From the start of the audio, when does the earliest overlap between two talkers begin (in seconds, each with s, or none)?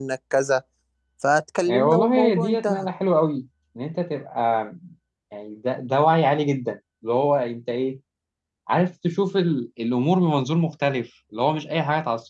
1.7 s